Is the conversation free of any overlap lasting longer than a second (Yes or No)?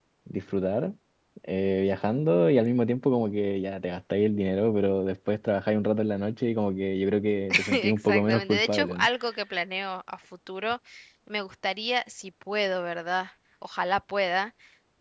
No